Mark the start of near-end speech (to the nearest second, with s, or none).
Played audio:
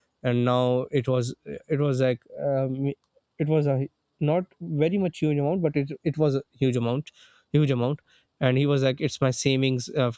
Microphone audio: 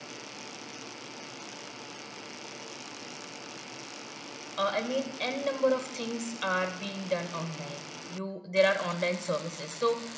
5 s